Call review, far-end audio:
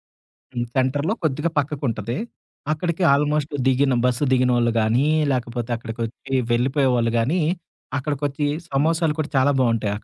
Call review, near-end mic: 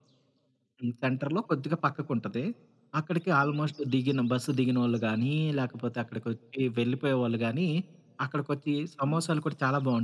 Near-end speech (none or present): none